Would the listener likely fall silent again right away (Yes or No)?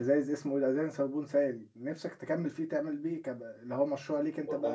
No